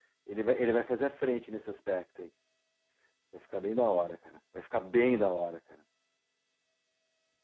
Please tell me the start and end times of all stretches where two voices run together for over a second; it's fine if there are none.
none

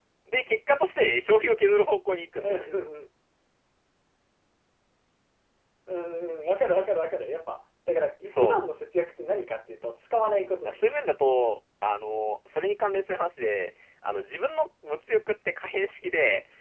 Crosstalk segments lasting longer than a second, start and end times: none

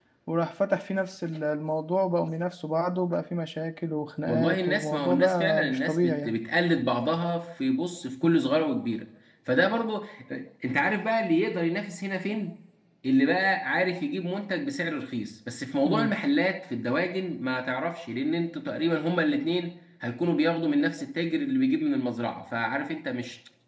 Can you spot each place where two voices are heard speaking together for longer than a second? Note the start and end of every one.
4.3-6.4

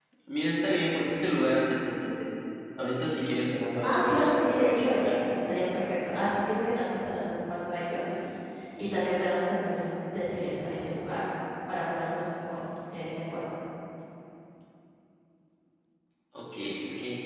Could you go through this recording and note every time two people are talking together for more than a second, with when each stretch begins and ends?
3.8-5.2

